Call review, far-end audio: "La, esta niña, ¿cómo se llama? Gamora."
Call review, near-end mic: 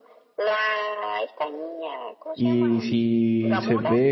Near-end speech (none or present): present